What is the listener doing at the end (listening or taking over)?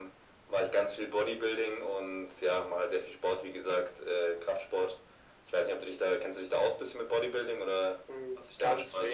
taking over